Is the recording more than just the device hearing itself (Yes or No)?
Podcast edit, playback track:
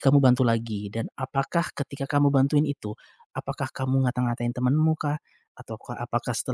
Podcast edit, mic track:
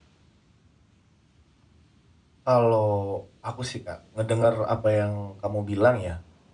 Yes